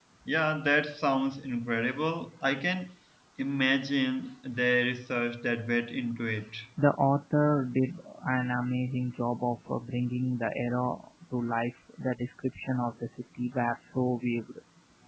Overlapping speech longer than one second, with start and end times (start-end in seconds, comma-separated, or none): none